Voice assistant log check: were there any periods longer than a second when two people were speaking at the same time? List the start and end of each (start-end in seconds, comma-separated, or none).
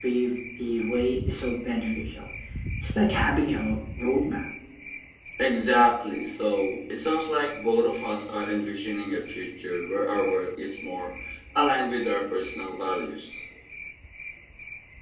none